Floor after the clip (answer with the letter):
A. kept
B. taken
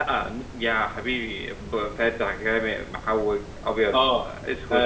B